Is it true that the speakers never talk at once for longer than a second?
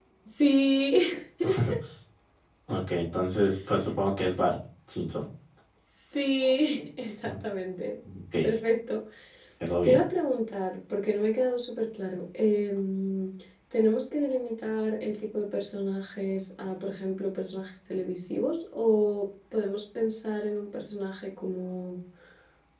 Yes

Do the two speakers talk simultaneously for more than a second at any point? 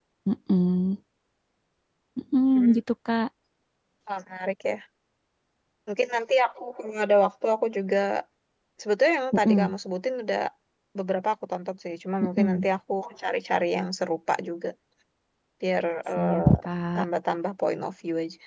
No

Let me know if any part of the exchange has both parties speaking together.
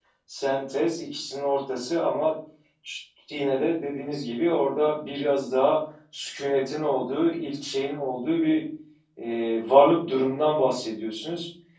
No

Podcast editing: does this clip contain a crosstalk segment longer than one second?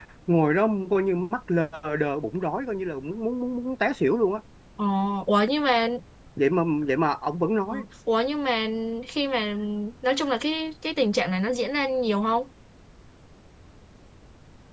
No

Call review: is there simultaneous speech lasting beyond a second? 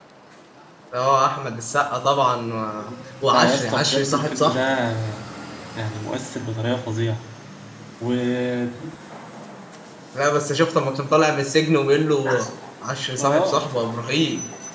Yes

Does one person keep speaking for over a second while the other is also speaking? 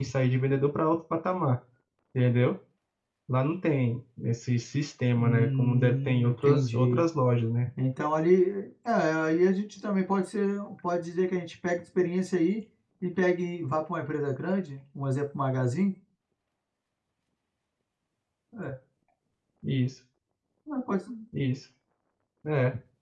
Yes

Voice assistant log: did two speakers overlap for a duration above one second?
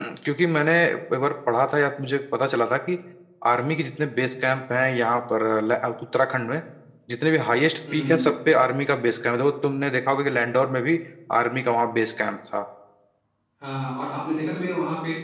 No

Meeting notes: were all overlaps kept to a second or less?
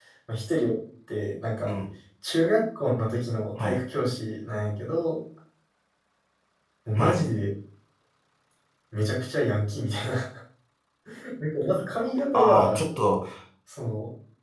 Yes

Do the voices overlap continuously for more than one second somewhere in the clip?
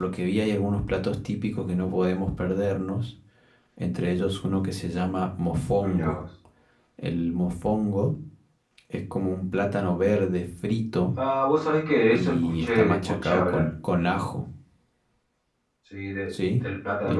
Yes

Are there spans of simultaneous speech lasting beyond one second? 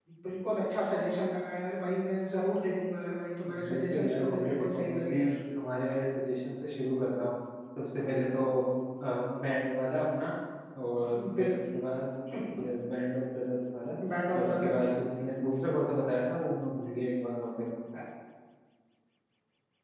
Yes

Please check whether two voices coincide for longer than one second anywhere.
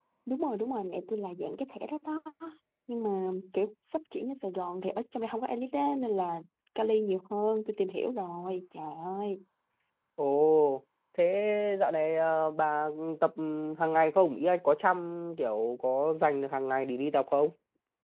No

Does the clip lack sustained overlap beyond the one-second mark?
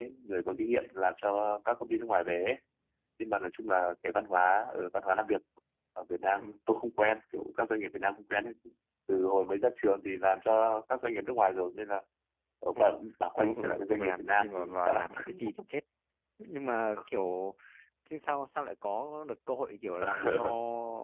No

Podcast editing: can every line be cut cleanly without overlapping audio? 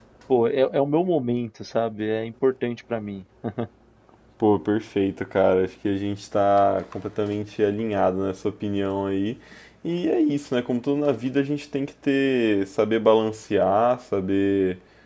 Yes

